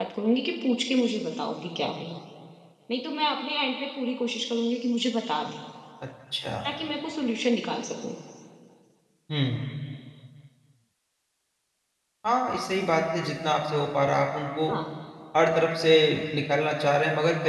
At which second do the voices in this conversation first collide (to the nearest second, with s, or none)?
none